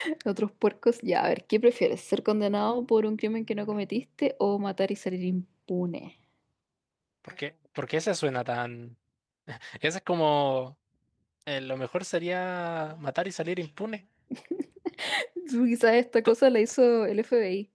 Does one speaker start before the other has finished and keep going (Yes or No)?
No